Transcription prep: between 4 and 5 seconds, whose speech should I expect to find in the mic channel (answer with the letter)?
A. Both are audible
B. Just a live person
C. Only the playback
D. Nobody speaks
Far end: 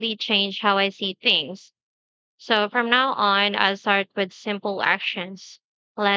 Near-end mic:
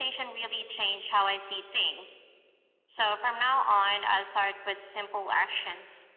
C